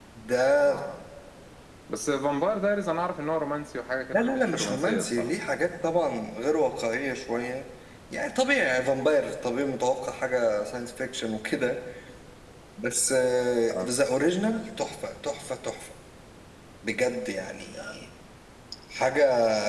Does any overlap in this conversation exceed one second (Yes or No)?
Yes